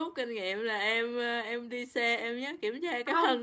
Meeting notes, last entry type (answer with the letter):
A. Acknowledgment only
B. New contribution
A